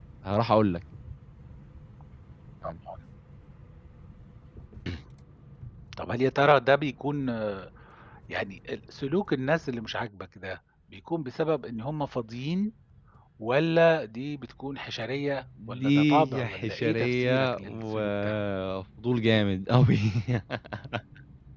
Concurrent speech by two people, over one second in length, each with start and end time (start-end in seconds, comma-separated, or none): 15.7-18.4